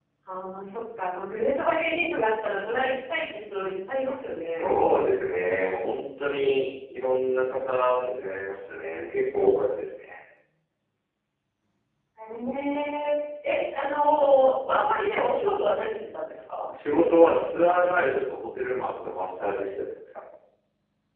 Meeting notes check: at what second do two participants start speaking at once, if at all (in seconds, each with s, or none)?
none